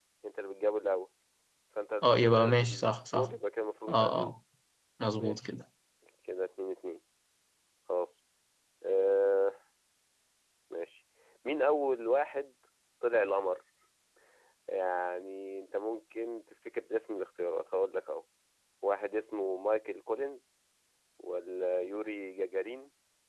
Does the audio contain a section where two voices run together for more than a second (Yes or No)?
Yes